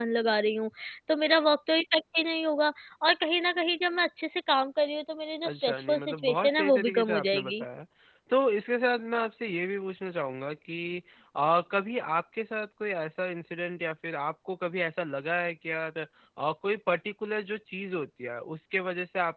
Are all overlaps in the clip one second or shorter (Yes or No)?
No